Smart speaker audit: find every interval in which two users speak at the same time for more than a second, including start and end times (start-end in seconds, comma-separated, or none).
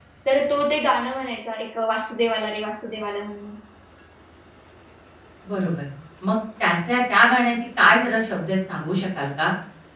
none